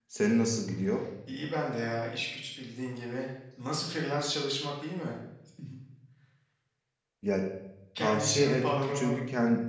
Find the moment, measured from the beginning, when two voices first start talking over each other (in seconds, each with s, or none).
8.0 s